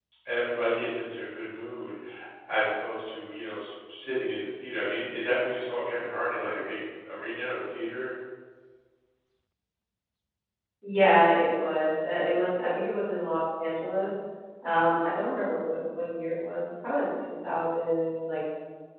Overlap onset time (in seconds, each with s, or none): none